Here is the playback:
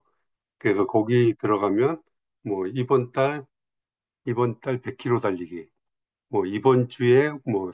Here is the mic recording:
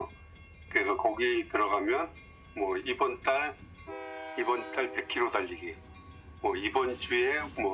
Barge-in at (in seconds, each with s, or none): none